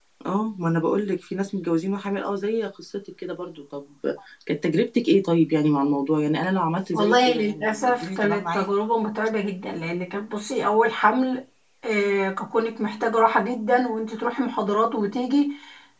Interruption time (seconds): 6.9 s

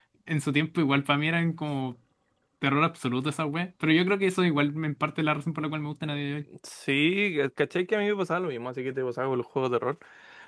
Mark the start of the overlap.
none

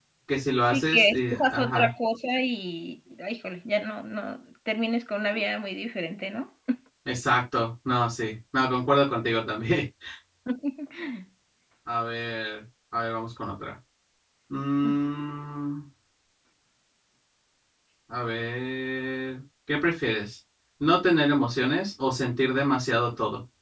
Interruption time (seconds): 0.7 s

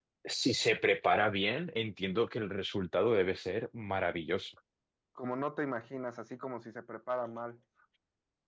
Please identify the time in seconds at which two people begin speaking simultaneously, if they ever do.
none

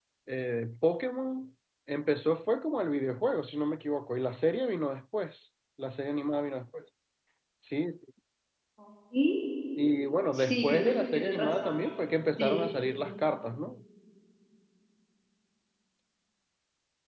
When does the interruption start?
10.3 s

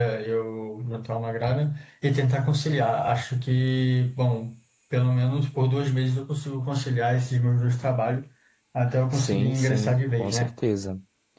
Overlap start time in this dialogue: 9.1 s

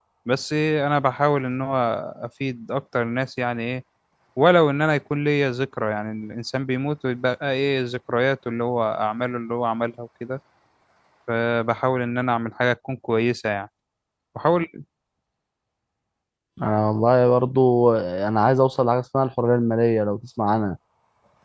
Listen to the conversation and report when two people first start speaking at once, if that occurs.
none

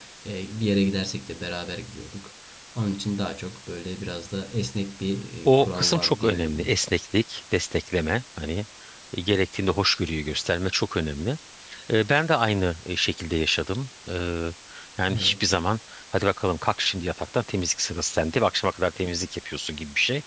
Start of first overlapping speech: 5.5 s

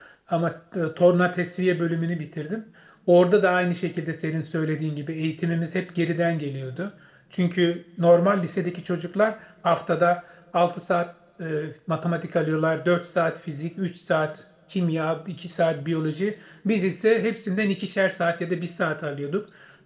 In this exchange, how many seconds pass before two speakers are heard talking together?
none

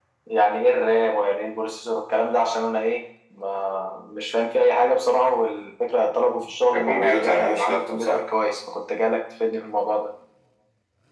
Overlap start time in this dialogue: 6.7 s

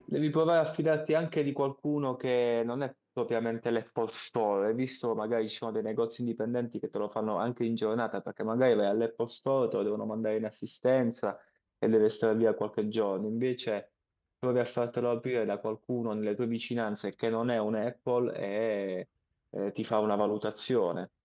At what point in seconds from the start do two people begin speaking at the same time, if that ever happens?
none

